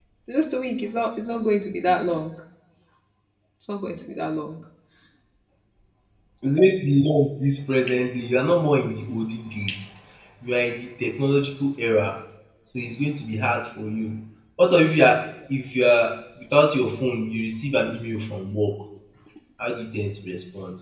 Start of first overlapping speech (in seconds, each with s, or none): none